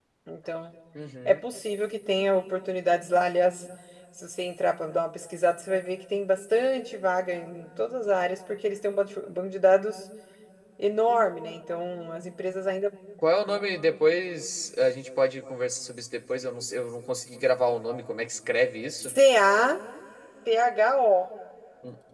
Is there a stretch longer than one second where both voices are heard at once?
No

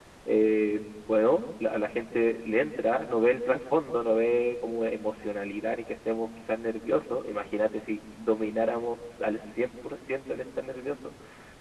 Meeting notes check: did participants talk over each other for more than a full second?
No

